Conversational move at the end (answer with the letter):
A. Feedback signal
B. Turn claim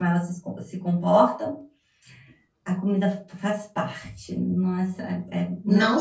B